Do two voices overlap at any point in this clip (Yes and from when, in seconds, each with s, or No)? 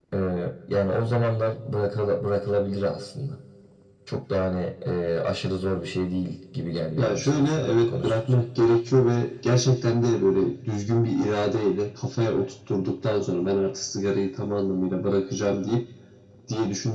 Yes, from 7.0 s